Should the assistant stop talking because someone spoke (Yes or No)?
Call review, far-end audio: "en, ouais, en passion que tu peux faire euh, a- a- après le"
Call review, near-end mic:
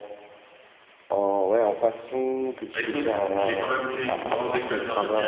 Yes